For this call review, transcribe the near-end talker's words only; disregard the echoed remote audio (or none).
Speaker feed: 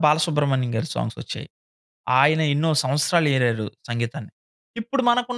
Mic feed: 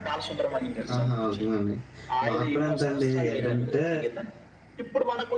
ఆహా! ఉకు మండి. మాక్కూడా అంతేండి. ఏంటంటే